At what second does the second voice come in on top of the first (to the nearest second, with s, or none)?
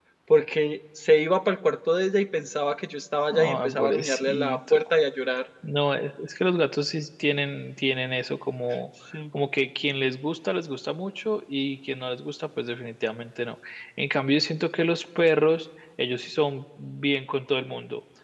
3 s